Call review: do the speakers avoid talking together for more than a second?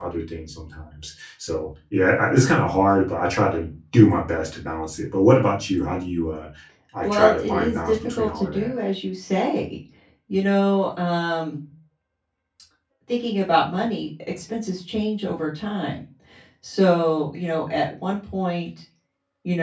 No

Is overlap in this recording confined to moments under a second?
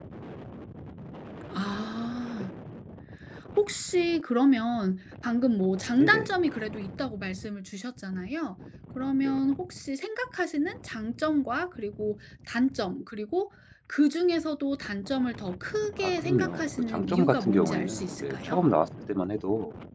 No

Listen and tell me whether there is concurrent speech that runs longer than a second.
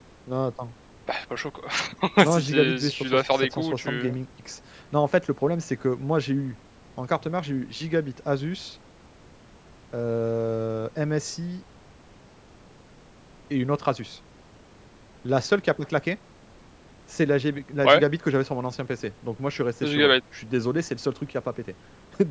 Yes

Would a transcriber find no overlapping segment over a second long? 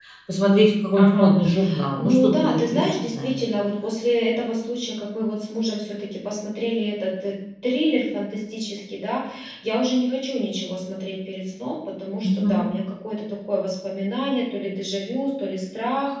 No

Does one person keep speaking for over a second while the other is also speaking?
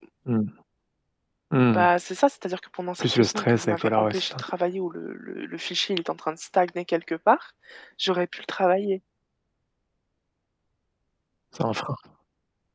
Yes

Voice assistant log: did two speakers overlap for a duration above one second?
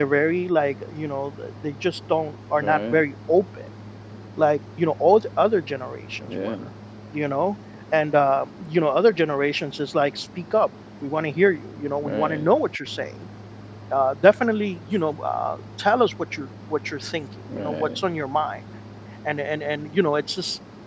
No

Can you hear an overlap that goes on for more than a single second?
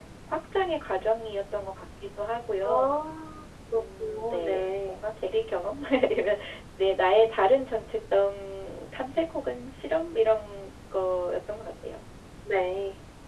Yes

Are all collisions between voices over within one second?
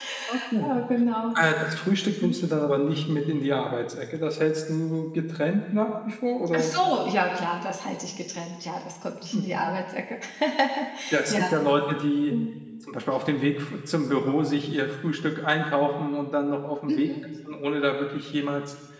Yes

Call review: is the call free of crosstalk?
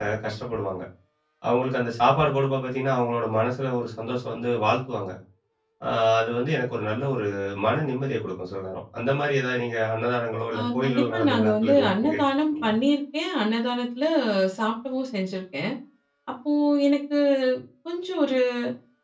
No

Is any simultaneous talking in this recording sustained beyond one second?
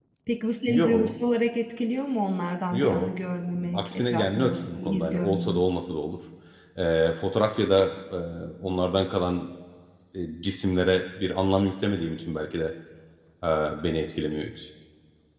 Yes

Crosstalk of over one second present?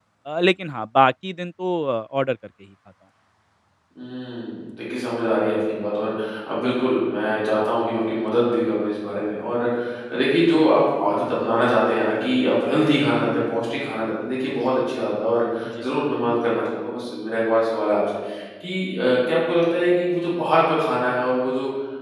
No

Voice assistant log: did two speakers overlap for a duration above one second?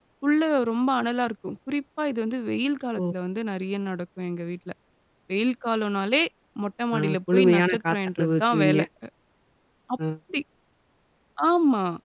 Yes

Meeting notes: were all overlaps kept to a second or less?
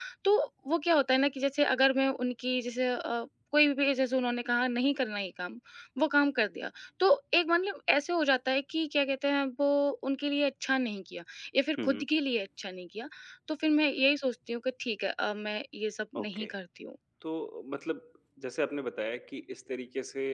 Yes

